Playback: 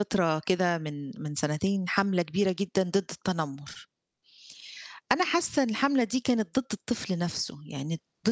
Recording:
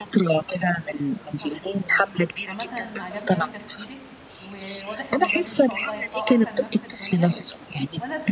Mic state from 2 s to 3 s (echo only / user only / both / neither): both